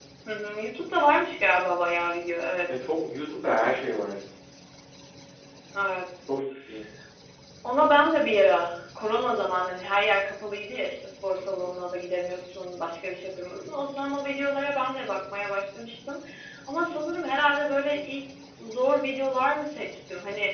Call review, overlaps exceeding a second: none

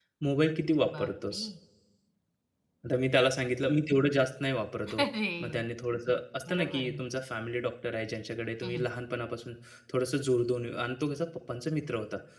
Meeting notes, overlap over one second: none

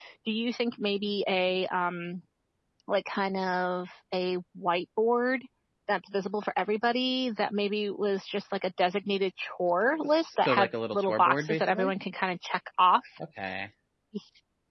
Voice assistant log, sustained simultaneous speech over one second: present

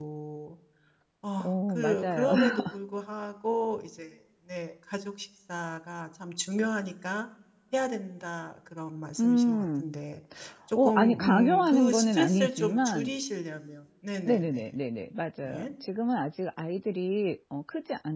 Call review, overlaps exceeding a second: present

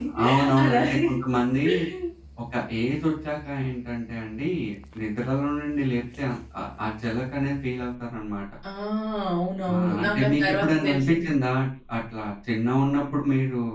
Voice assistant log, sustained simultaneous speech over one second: present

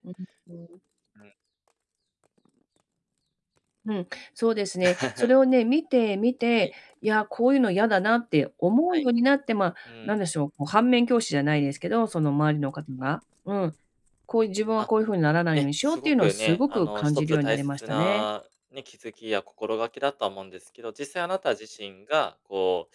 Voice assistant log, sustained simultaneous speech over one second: present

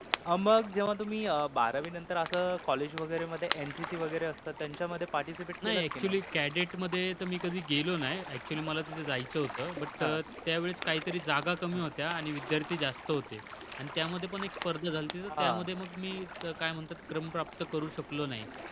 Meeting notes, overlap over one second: none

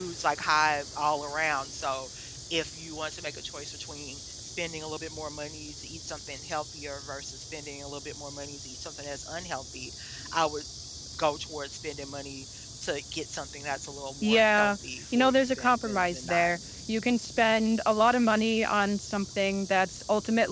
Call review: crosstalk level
present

